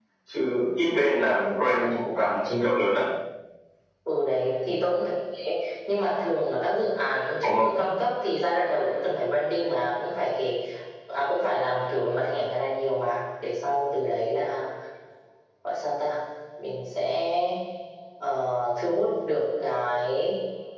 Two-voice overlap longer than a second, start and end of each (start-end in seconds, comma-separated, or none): none